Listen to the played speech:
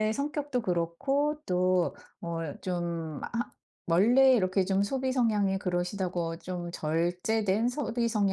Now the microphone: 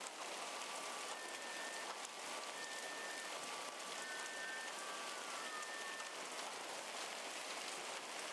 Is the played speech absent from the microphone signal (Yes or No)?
Yes